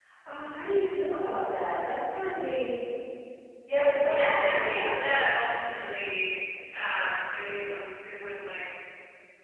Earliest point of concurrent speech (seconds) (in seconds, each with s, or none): 4.0 s